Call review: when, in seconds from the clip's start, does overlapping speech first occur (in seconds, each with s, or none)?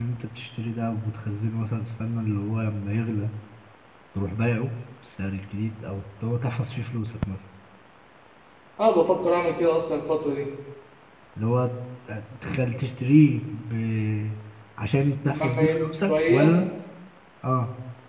15.2 s